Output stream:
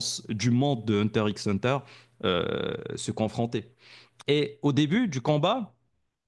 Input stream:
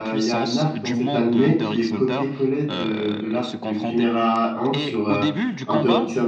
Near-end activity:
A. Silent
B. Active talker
B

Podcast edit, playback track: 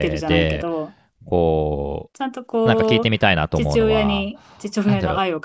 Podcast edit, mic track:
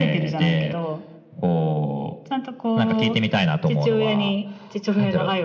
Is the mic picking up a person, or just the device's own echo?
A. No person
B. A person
A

